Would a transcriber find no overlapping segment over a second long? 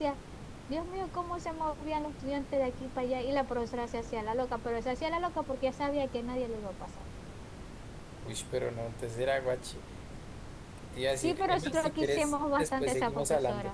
No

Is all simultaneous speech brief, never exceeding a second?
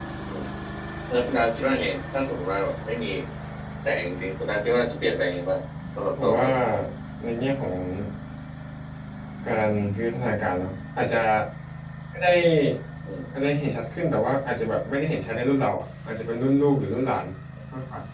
Yes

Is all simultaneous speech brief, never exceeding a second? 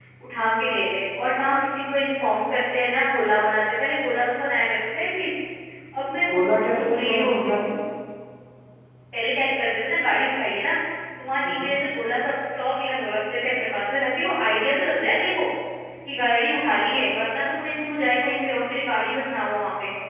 No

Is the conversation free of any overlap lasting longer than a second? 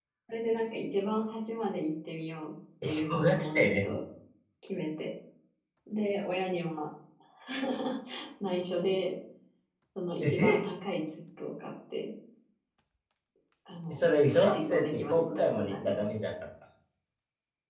No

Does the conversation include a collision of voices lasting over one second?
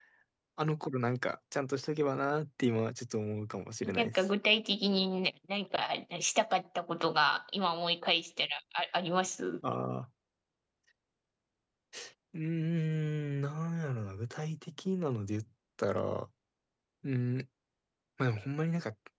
No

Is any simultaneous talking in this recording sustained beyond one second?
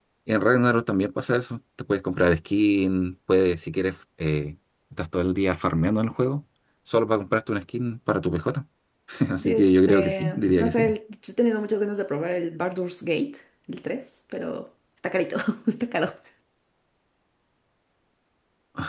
Yes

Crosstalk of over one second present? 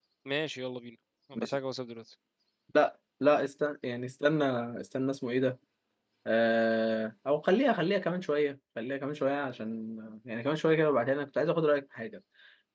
No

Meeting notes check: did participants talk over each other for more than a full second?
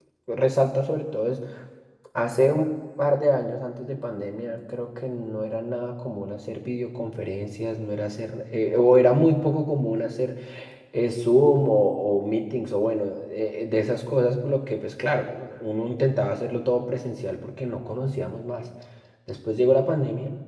No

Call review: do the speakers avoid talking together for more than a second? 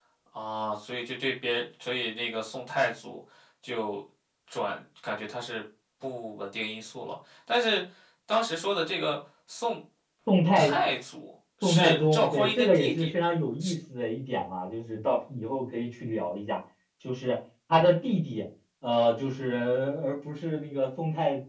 No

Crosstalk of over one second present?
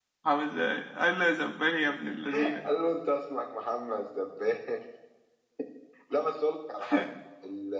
No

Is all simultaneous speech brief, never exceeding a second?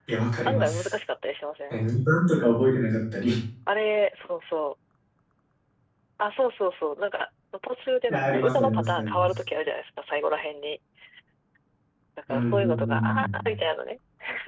No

